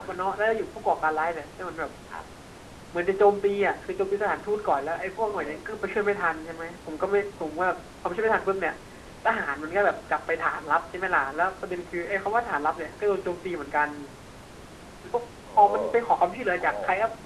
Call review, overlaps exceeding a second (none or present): none